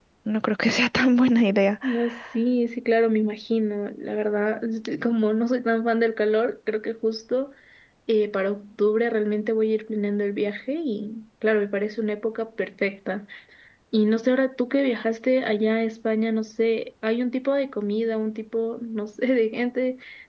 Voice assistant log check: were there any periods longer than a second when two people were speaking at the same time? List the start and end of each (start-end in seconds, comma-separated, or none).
none